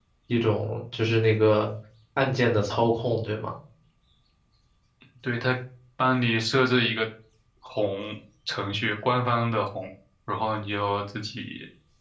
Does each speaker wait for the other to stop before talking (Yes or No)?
Yes